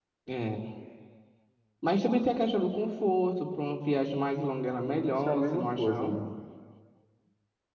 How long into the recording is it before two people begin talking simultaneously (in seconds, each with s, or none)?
4.9 s